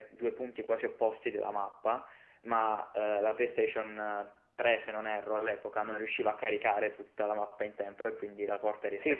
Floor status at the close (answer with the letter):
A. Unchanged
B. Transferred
B